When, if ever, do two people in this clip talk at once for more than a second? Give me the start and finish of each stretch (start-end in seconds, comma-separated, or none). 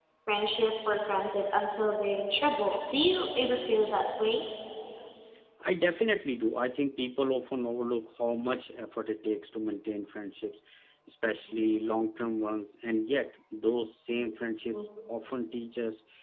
none